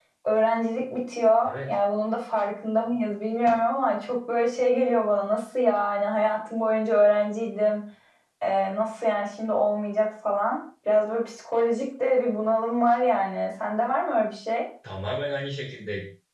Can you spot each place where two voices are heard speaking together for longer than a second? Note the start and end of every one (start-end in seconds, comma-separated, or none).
none